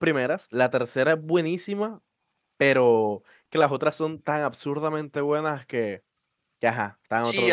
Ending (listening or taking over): taking over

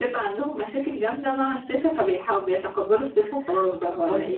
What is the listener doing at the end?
taking over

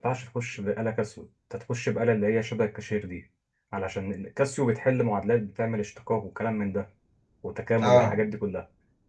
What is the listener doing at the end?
listening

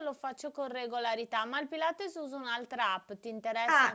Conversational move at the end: taking over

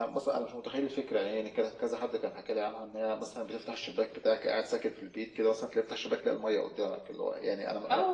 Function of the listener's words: taking over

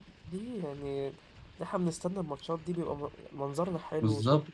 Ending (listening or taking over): taking over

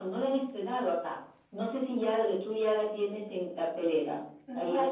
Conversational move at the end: taking over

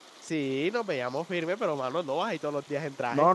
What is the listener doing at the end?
taking over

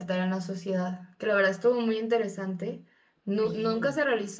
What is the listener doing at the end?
listening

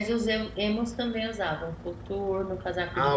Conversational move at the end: taking over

